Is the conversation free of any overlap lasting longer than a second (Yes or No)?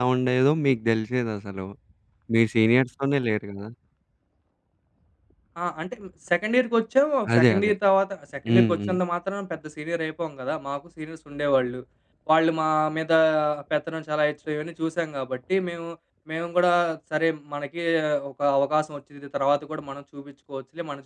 Yes